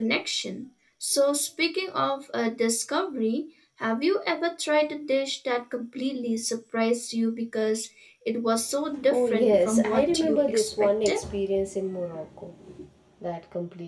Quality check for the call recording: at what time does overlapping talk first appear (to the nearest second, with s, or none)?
9 s